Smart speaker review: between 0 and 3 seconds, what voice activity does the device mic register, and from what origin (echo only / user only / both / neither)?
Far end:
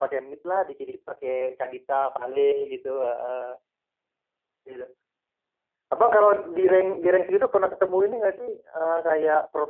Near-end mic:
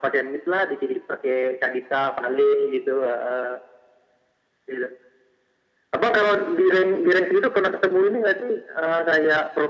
echo only